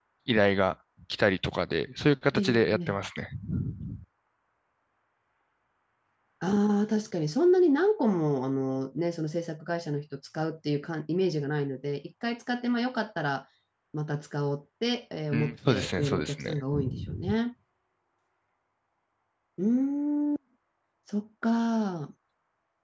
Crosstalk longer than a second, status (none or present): present